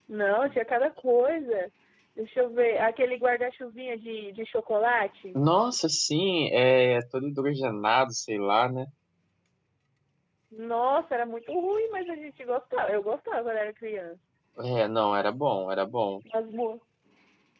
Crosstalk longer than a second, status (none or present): none